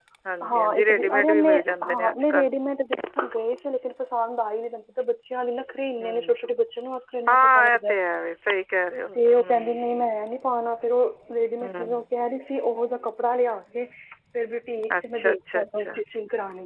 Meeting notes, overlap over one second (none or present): present